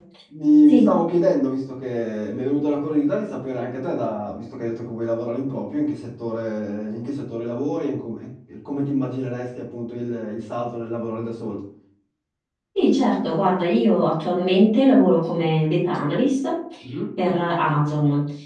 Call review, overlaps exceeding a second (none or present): none